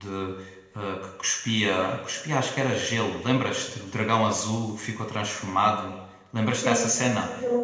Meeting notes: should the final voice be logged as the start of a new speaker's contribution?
Yes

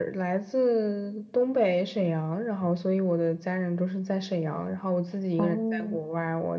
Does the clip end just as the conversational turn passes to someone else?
No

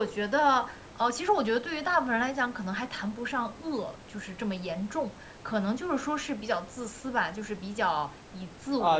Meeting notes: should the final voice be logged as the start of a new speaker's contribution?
Yes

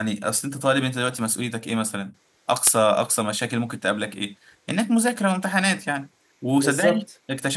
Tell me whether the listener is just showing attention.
Yes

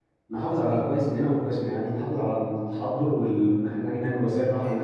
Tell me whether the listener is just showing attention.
Yes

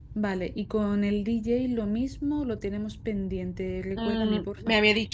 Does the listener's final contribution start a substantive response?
Yes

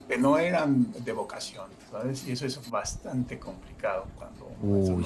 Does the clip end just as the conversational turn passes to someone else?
No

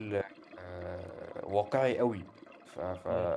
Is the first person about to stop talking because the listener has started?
No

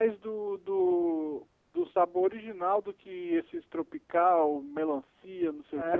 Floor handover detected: Yes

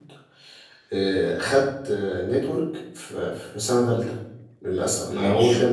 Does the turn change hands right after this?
No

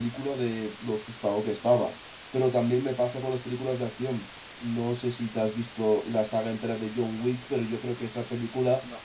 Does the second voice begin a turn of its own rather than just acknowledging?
No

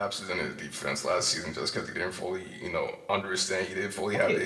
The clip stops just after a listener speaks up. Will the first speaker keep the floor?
No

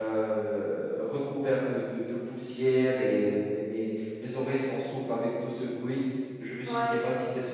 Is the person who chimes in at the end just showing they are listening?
Yes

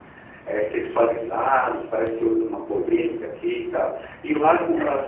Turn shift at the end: No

